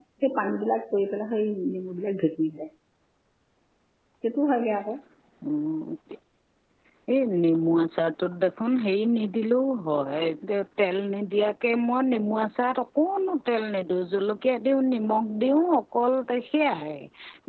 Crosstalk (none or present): none